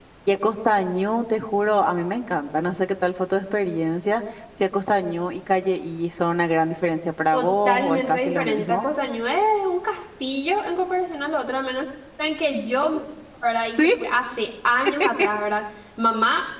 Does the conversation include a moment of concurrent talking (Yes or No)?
Yes